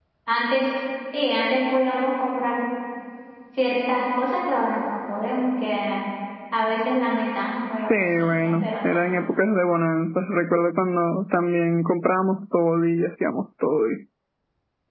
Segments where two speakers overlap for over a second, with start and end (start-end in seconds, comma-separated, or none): 7.8-9.0